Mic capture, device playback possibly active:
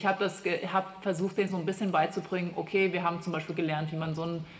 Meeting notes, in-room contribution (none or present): none